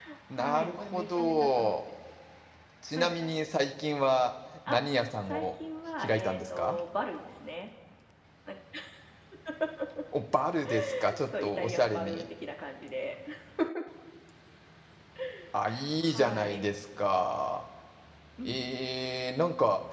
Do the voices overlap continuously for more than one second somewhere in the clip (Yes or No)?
Yes